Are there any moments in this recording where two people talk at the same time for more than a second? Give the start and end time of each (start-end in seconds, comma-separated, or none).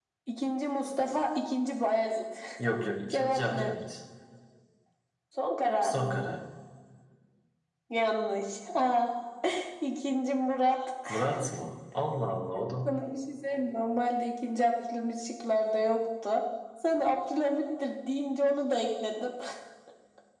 none